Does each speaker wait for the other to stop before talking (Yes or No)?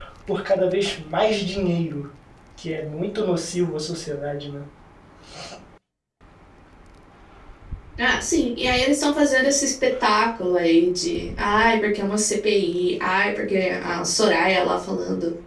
Yes